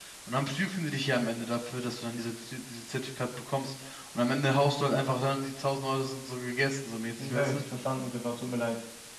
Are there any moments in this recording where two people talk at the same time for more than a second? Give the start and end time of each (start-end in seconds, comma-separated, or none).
none